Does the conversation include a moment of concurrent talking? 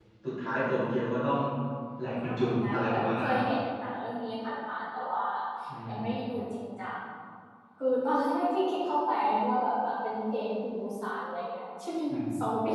Yes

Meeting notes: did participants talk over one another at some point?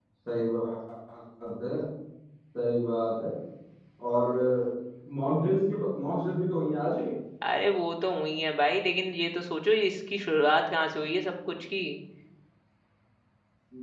No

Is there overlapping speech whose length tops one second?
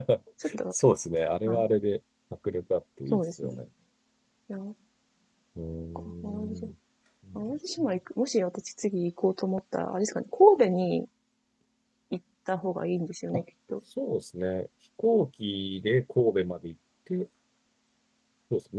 No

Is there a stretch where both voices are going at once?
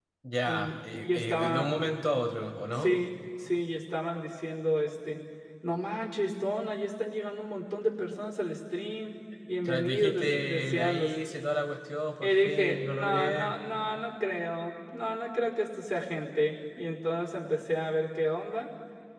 Yes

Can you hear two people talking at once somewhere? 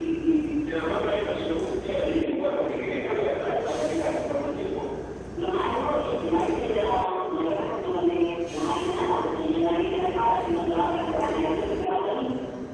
No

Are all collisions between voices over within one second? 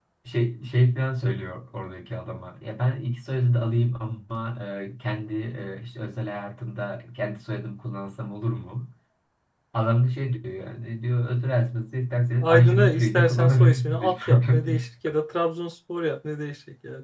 No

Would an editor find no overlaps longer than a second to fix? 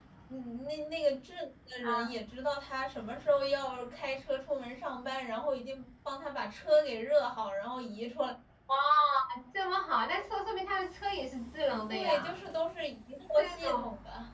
Yes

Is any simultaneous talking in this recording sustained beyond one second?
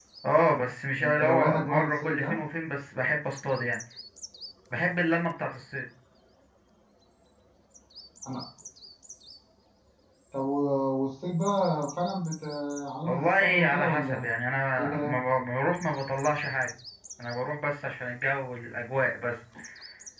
Yes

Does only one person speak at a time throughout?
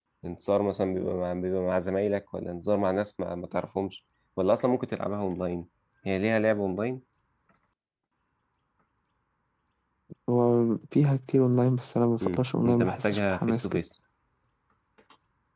No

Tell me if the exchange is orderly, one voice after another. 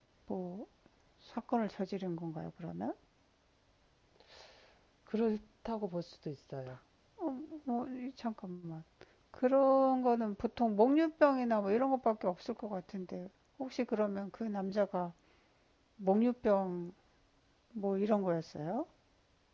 Yes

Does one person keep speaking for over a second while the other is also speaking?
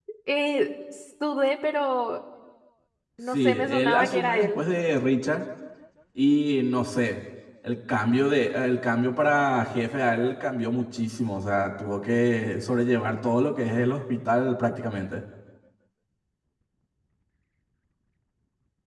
Yes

